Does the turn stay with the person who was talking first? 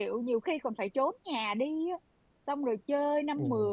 Yes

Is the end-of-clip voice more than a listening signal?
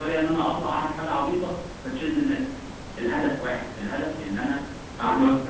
Yes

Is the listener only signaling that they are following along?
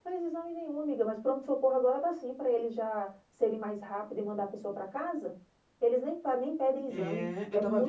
No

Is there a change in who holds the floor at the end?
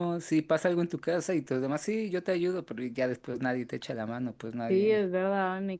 Yes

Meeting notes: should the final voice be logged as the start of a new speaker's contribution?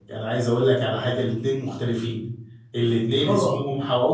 No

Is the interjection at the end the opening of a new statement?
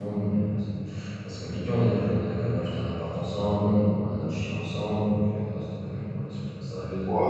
Yes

